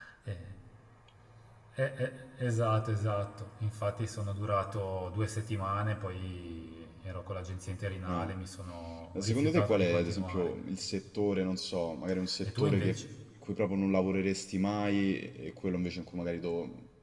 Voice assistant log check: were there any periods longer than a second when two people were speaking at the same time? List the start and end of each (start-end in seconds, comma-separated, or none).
9.2-10.5